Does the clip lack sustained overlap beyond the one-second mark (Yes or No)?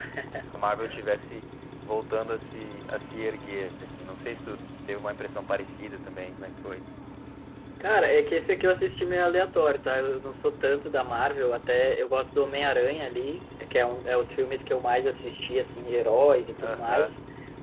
Yes